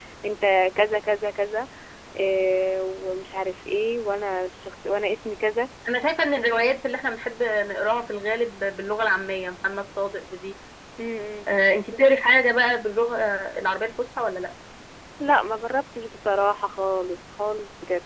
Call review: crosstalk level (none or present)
none